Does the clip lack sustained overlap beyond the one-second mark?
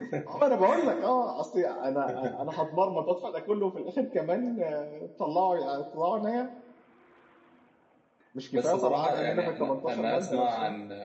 No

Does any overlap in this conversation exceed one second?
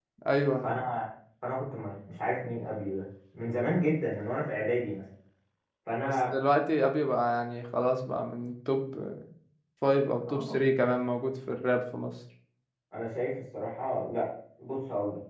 No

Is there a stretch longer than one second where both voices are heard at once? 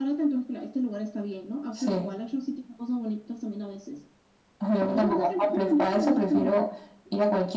Yes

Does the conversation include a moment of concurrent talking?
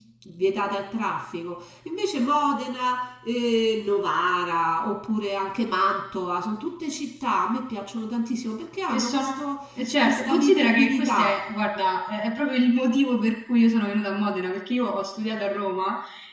Yes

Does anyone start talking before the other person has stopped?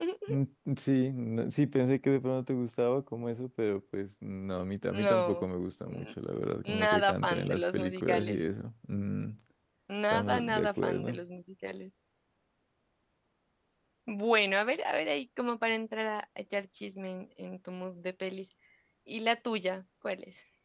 Yes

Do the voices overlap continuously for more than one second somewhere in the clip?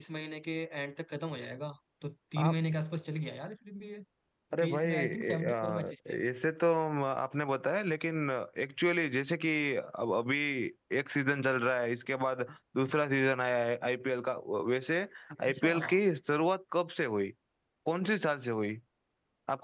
Yes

